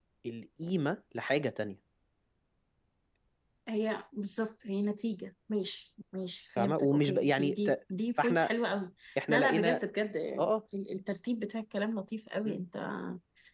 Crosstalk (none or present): present